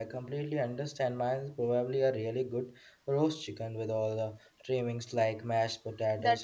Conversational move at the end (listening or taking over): taking over